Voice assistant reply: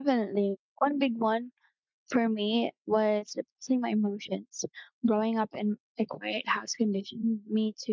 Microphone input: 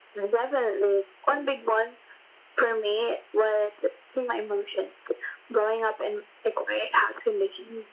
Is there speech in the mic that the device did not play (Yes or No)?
No